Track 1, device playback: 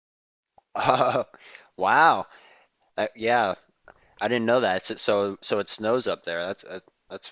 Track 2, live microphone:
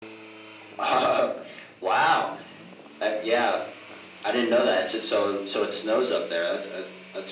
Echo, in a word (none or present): present